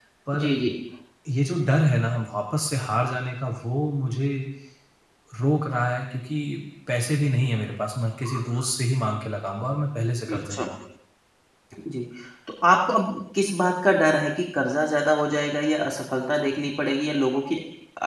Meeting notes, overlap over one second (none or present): none